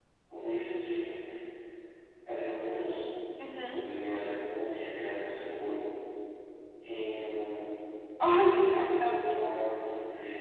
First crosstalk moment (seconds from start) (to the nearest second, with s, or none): 8 s